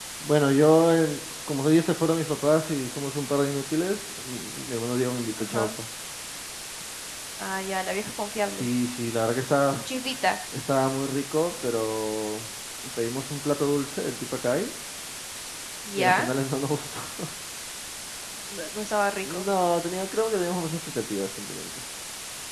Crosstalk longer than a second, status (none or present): none